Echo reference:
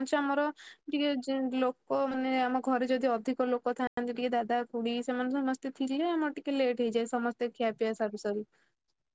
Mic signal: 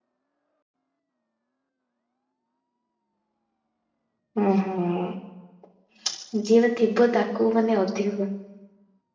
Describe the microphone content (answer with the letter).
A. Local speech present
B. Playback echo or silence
A